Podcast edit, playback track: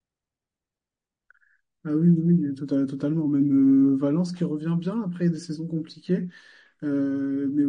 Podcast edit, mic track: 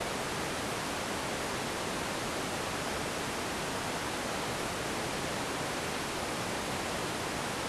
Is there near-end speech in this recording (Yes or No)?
No